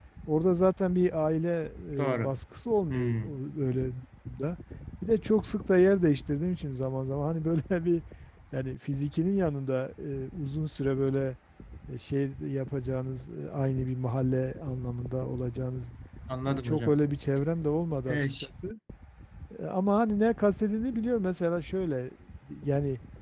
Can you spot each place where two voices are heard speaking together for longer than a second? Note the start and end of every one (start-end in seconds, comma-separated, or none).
none